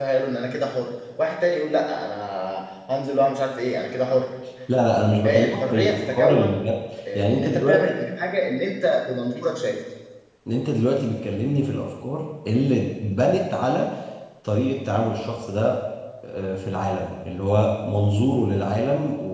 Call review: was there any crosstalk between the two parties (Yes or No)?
Yes